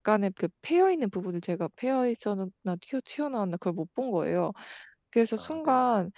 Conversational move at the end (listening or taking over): listening